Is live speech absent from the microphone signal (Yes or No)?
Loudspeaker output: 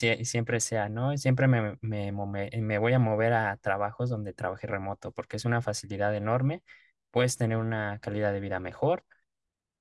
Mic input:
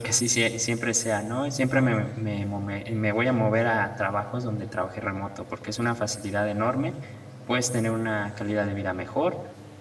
No